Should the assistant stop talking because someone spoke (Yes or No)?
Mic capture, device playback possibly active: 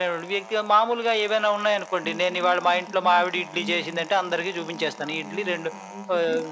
Yes